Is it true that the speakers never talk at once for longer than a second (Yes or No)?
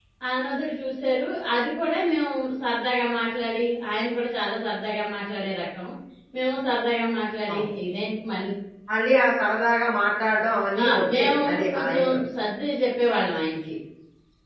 No